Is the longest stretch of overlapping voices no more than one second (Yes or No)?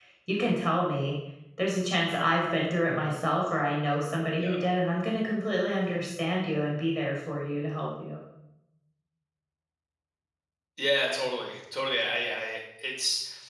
Yes